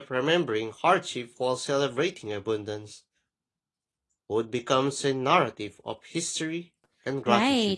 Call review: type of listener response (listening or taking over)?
taking over